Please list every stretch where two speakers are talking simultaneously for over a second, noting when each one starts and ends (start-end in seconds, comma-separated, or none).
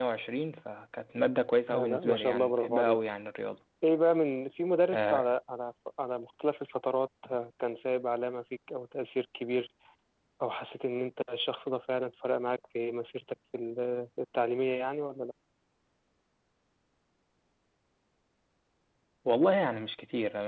1.7-3.0